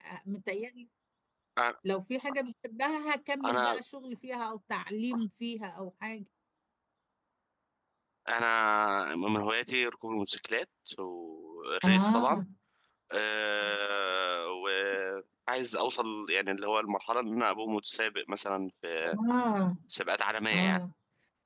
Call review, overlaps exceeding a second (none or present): none